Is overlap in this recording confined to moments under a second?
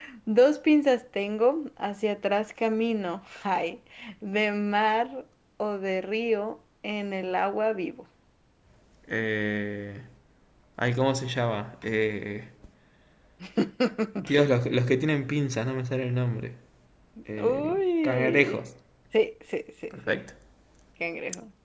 No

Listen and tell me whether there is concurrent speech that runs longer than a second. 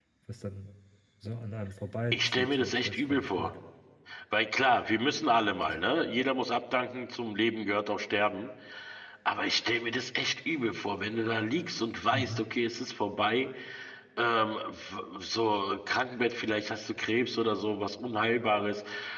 Yes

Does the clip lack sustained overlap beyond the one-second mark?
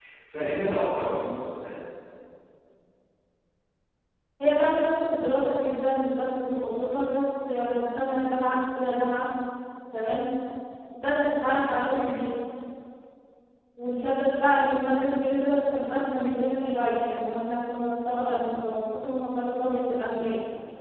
Yes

